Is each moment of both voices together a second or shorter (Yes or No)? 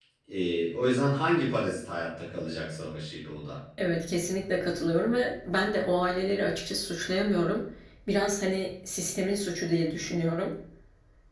Yes